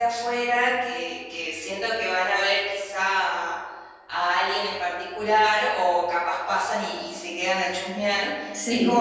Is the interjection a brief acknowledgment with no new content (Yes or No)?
Yes